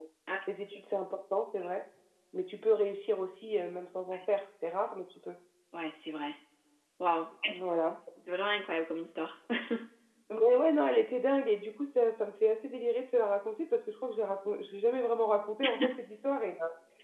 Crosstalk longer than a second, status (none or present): none